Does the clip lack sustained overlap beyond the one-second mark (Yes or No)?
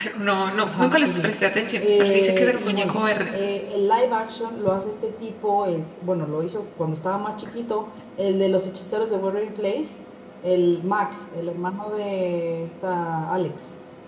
No